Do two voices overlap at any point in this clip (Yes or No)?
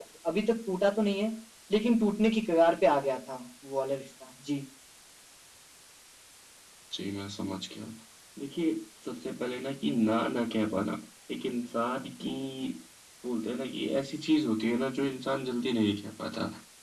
No